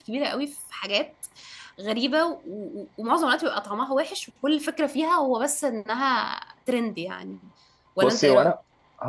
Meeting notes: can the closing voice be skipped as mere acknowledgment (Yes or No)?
No